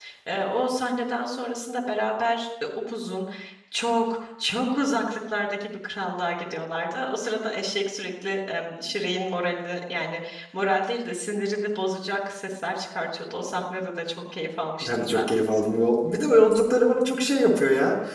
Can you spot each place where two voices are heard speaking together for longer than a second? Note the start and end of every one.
none

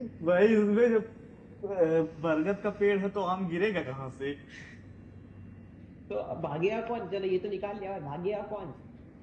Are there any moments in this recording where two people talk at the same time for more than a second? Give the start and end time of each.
none

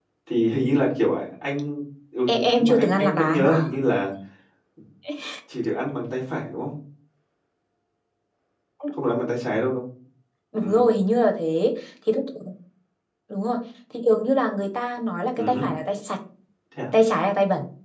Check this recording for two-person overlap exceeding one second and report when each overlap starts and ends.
2.3-3.5

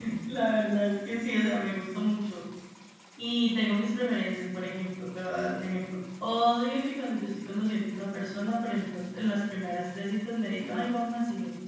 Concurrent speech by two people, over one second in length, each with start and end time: none

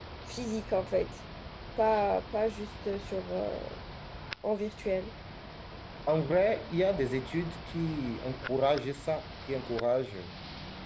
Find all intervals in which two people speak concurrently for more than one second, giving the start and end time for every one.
none

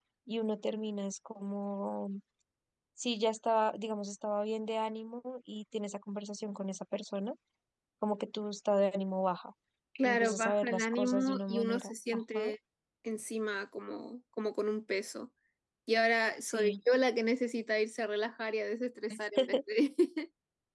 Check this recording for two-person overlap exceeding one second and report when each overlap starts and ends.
10.0-12.5

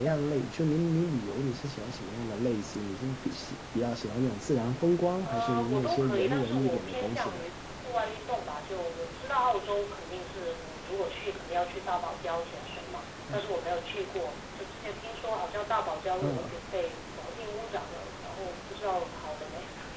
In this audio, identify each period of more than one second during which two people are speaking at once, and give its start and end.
5.3-7.4

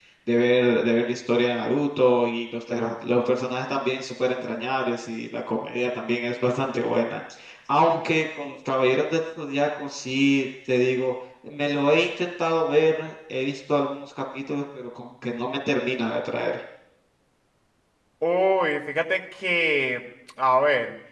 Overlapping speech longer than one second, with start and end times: none

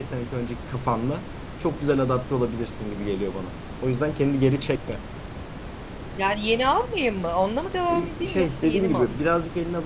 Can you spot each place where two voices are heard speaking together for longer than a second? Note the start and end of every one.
7.9-9.2

